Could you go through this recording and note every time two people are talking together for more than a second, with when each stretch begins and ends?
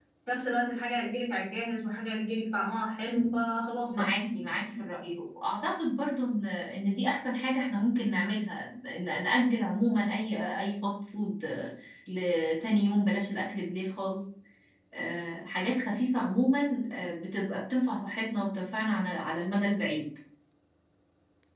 none

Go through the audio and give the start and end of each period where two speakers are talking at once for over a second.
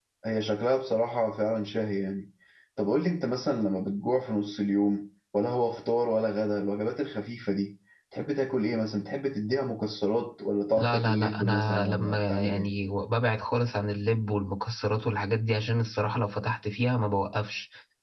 10.8-12.7

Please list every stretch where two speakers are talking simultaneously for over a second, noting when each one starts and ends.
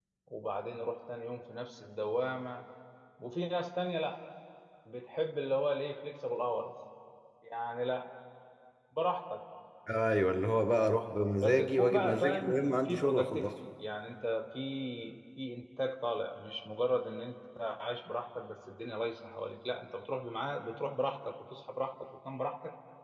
11.4-13.5

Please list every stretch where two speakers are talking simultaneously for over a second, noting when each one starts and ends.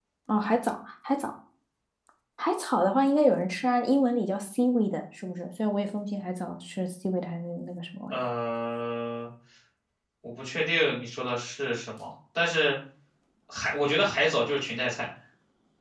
none

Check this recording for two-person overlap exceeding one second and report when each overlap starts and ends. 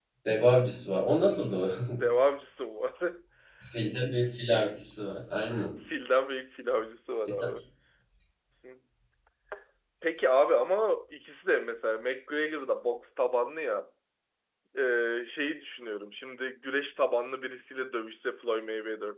none

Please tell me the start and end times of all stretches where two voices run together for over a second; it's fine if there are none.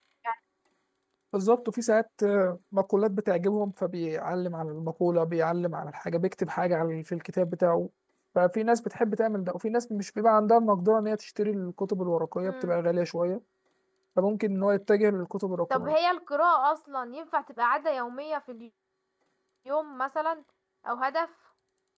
none

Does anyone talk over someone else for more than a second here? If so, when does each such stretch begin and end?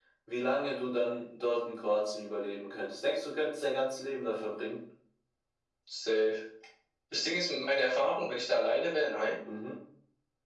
none

